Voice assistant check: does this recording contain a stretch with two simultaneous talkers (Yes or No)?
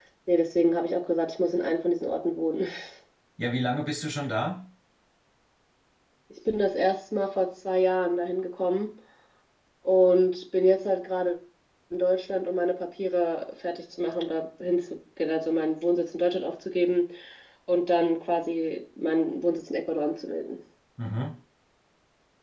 No